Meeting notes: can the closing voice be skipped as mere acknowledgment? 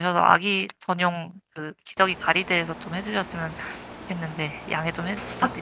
No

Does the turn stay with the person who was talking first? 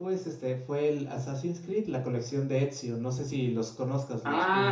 No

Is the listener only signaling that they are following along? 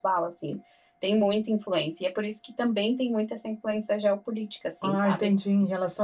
No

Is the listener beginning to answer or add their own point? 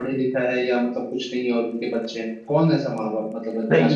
Yes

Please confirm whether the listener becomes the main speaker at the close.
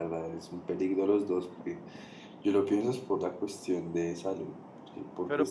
Yes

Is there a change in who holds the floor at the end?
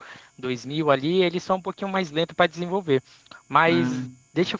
No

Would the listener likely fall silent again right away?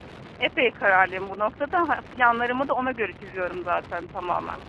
Yes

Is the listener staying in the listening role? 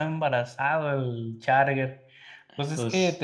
Yes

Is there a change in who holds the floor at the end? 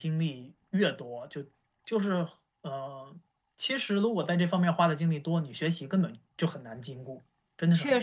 Yes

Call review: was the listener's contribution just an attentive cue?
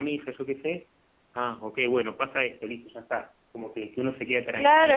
No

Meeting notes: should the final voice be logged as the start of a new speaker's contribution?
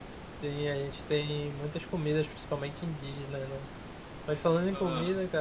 No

